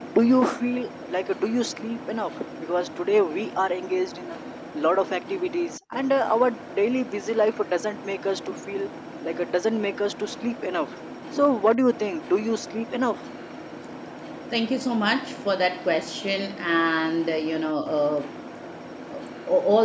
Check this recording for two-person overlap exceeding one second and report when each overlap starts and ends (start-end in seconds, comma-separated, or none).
none